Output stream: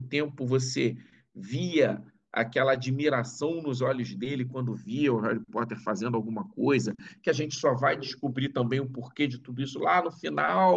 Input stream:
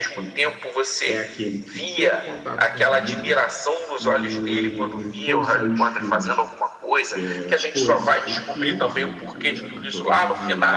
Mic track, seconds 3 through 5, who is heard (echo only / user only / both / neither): both